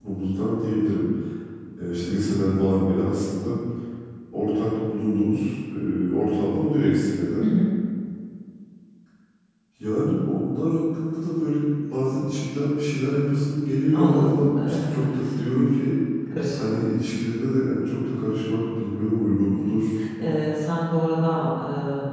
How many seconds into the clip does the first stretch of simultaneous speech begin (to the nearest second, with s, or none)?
14 s